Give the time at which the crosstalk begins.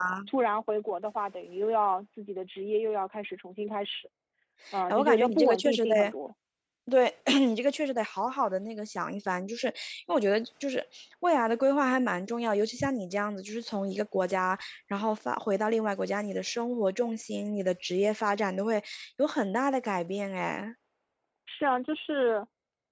5 s

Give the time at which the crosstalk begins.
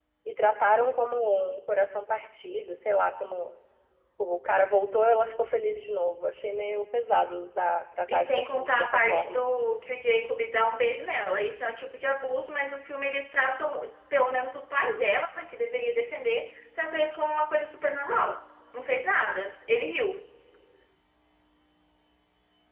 8 s

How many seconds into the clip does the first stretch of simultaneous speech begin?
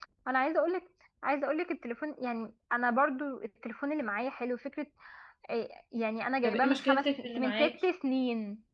6 s

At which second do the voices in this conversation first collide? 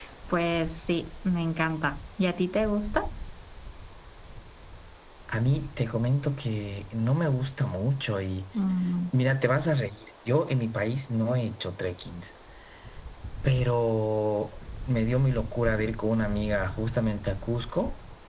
none

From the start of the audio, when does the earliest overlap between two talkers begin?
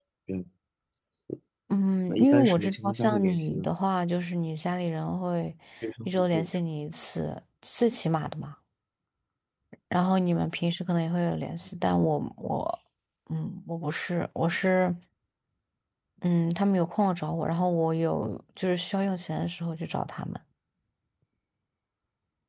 2 s

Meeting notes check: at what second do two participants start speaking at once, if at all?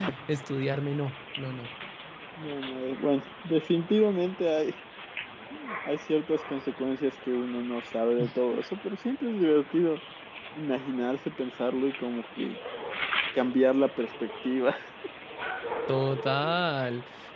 none

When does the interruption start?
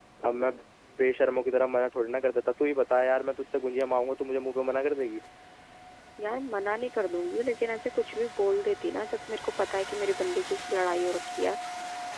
none

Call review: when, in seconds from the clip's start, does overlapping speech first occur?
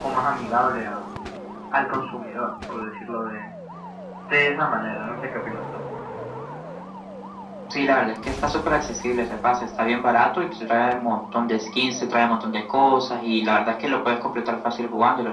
none

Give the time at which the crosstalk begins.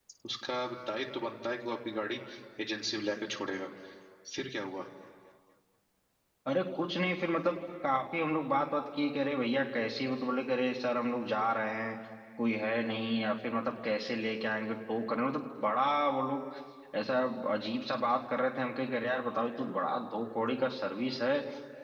none

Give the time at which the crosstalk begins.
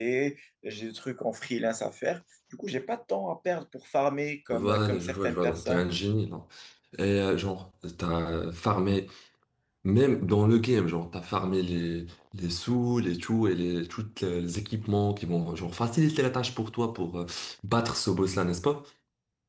4 s

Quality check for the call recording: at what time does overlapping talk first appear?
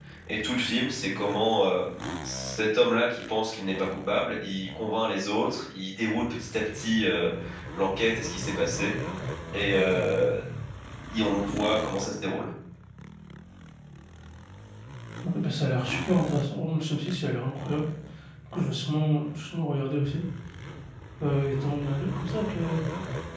none

